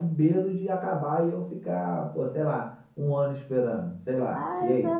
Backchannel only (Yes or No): No